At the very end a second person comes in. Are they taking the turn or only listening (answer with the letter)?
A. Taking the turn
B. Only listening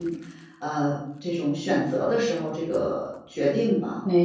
A